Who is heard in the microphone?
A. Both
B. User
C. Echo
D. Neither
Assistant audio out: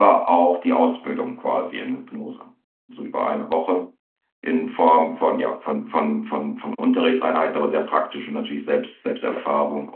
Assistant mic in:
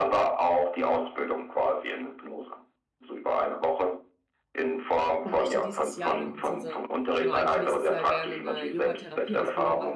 A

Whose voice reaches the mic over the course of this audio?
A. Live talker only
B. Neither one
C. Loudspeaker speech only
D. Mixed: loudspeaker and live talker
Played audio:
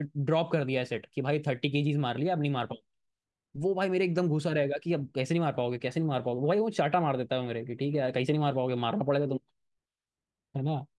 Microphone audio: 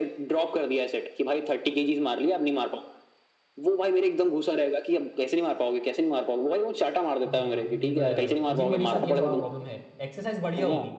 D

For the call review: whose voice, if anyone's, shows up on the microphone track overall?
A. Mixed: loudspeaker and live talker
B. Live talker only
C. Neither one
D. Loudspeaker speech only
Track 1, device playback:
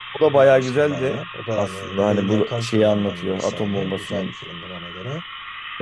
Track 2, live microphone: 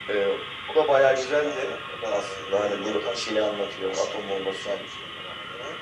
D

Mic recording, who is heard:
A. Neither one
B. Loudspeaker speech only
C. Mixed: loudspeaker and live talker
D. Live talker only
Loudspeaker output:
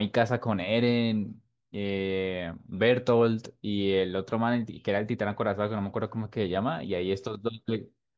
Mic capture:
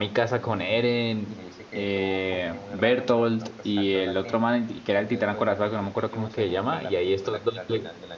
C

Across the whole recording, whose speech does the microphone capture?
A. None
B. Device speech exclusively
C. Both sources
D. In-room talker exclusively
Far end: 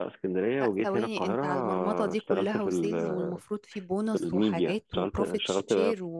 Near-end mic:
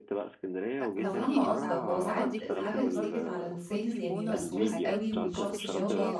C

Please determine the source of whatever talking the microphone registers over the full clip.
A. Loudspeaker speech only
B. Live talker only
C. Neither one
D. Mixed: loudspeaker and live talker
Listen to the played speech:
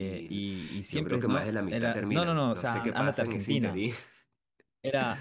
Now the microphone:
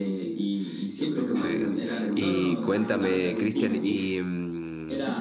D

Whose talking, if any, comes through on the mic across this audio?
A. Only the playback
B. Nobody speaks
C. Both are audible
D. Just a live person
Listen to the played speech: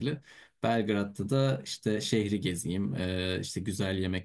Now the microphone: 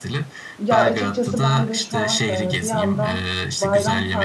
C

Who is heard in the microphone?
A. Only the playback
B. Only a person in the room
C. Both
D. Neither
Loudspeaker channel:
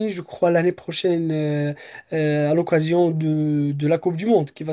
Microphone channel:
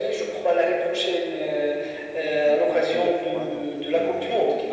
C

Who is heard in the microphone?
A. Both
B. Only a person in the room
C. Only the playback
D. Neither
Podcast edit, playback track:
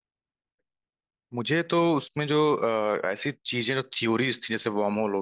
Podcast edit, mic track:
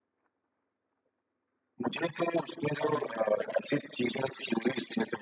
A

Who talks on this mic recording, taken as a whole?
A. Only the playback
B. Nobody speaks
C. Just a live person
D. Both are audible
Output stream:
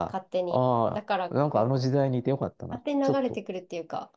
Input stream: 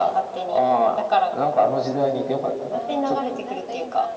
D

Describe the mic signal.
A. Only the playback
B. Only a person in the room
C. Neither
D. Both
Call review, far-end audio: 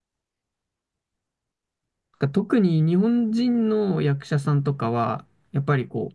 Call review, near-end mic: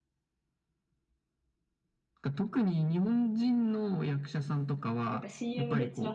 D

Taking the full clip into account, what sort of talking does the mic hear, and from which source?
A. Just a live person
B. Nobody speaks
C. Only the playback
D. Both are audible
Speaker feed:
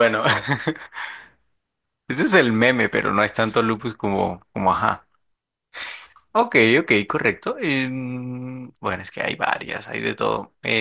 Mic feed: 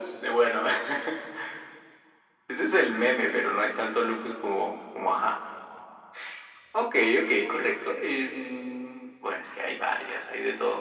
C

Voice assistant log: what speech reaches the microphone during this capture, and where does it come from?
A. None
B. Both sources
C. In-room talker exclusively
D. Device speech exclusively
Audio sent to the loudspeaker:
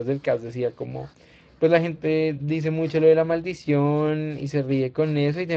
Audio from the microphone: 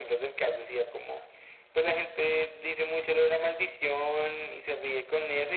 D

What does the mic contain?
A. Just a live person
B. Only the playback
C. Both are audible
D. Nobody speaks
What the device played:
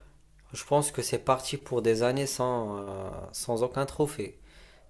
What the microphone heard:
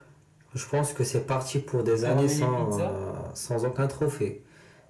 C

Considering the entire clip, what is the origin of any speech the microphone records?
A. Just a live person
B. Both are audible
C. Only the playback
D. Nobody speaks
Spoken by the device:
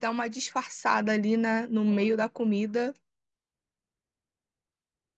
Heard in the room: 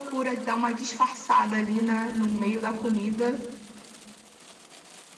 C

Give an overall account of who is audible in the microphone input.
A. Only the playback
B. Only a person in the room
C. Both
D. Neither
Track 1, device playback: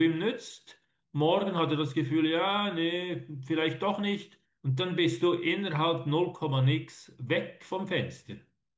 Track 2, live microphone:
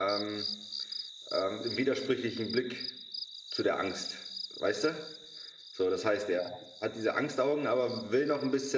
B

